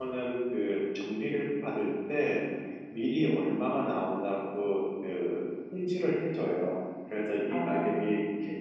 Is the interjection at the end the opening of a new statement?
No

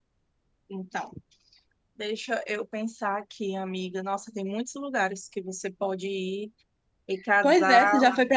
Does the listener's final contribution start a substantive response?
Yes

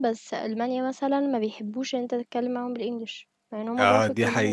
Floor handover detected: Yes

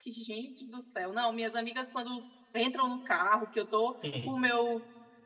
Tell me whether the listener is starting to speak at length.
No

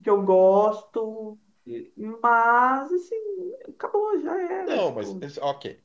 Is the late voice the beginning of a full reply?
Yes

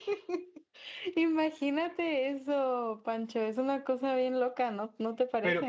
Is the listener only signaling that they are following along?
No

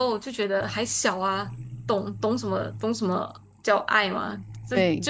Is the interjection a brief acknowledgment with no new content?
Yes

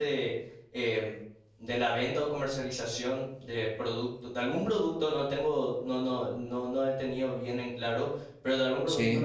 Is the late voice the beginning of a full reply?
No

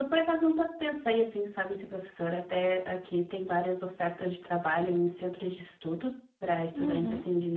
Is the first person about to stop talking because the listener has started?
No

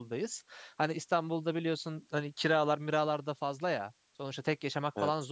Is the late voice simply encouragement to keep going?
Yes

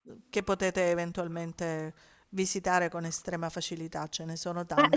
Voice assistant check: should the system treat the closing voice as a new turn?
Yes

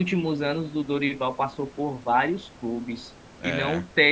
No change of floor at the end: Yes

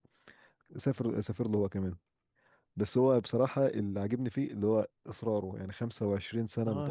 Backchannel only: No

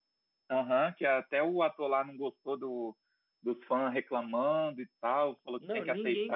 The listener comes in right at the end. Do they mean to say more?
Yes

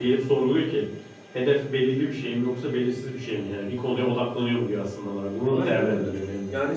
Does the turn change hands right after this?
Yes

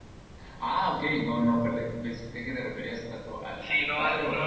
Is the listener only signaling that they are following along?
No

